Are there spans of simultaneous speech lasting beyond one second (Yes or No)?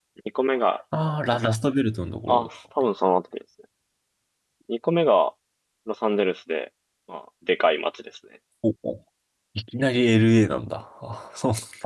No